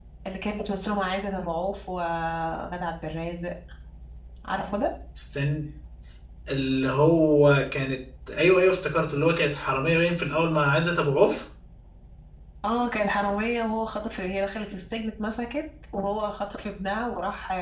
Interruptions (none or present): none